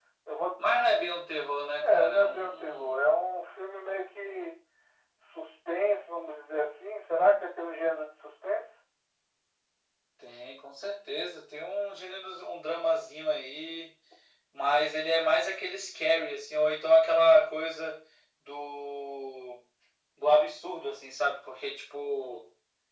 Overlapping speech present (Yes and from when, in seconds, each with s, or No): Yes, from 1.8 s